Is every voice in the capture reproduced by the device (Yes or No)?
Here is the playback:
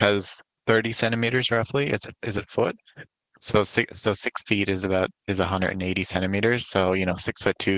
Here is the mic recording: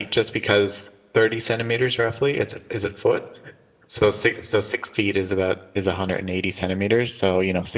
Yes